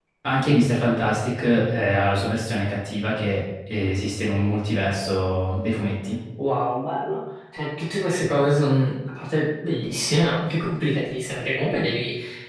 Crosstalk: none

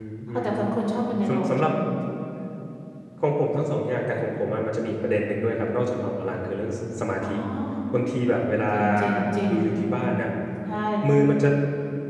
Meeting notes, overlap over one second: none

